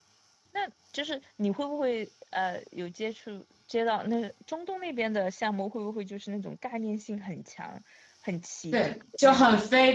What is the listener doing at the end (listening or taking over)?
taking over